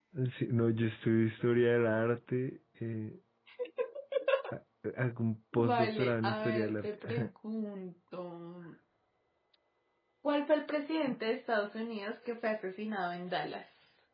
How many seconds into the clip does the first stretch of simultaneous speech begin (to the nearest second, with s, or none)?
6 s